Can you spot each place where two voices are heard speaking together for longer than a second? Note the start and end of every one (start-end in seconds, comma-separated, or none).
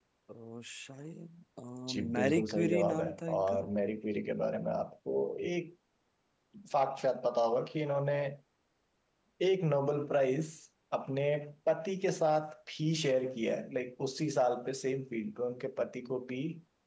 2.2-3.5